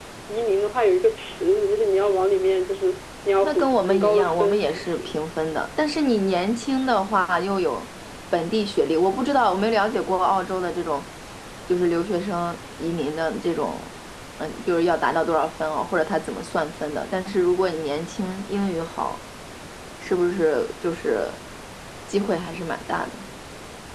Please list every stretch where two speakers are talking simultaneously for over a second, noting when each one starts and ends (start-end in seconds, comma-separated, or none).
3.4-5.2